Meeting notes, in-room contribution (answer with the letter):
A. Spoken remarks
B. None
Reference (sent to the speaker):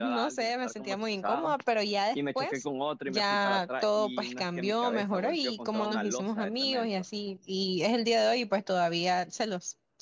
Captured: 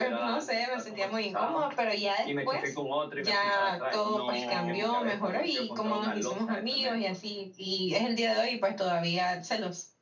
A